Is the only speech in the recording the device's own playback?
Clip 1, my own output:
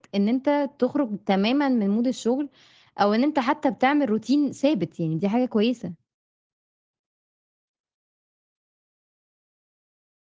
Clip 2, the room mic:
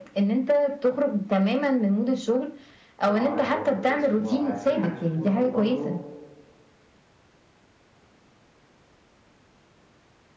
No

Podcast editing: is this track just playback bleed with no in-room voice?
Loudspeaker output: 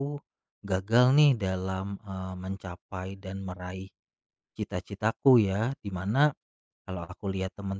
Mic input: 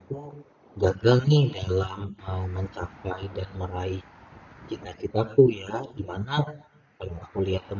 Yes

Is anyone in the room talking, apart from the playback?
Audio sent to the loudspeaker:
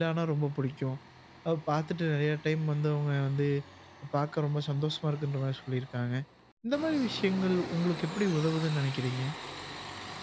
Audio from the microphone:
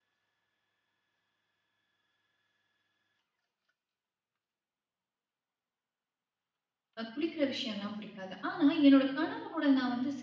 Yes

